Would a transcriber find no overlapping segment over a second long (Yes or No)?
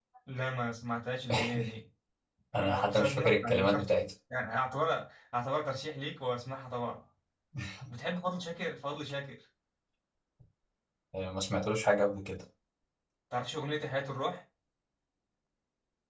No